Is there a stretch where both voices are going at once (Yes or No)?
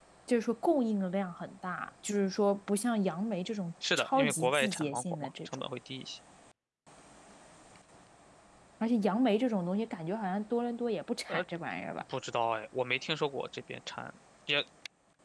Yes